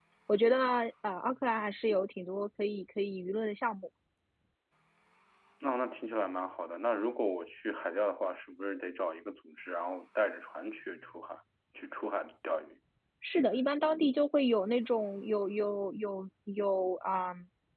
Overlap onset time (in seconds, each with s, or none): none